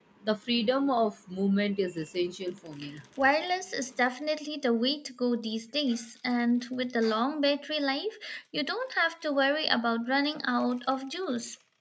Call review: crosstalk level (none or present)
none